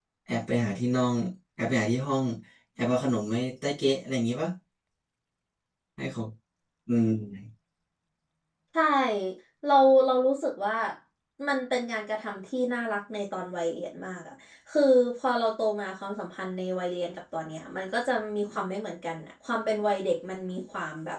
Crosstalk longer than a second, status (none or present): none